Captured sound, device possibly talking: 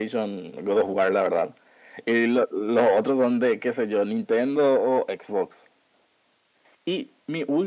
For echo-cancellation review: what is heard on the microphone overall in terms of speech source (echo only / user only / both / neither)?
echo only